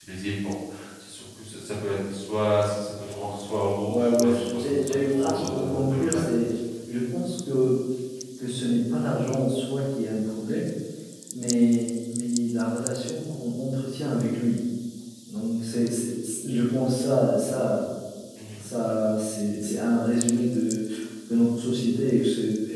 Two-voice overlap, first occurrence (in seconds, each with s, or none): 3.9 s